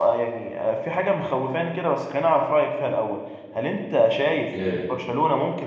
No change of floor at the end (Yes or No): Yes